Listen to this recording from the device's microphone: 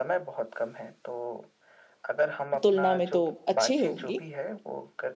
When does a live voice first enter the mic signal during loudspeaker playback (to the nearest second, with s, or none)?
3 s